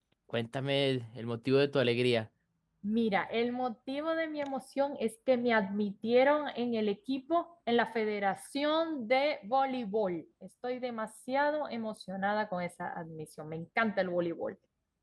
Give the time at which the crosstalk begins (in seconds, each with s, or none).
none